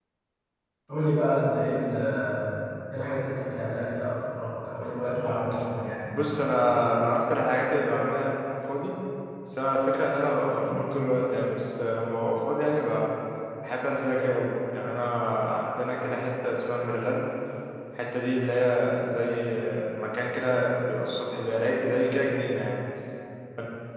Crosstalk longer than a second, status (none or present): none